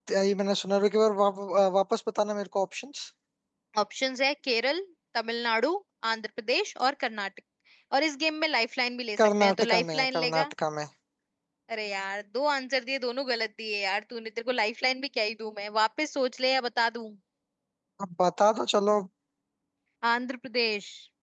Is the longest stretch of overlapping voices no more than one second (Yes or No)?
No